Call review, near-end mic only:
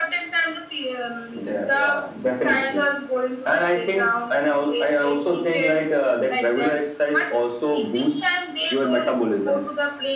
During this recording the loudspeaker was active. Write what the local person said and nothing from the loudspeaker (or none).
none